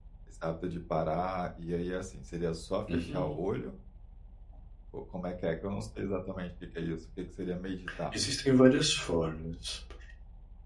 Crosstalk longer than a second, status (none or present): none